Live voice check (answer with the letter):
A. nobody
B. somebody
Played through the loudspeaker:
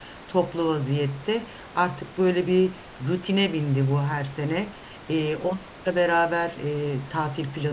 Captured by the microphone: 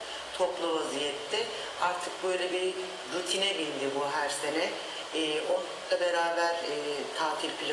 A